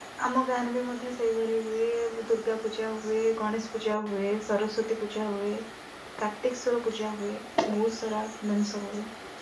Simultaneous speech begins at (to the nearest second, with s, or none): none